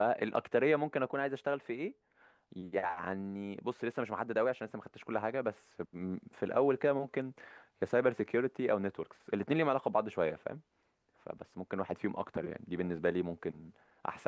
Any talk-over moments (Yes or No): No